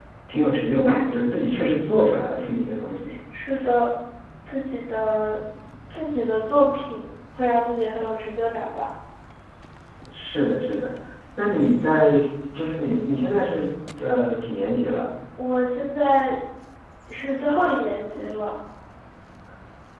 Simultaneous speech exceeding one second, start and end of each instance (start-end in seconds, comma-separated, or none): none